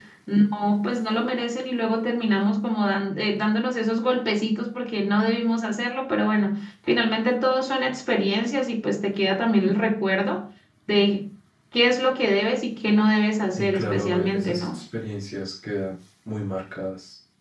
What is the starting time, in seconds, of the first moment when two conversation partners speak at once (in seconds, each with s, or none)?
13.6 s